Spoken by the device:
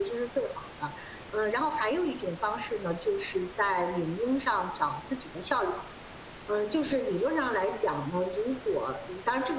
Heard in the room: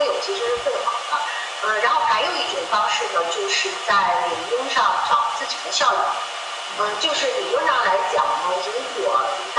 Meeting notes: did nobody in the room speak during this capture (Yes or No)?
Yes